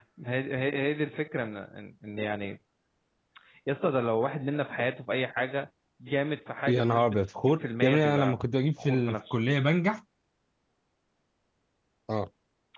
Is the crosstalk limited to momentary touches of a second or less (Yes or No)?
No